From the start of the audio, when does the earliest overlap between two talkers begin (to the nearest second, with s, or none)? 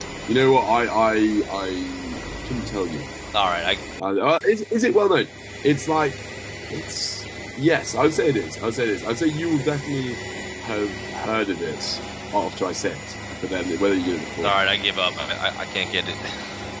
none